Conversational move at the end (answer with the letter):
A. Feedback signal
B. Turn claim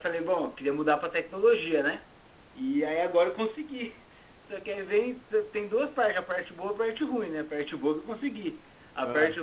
A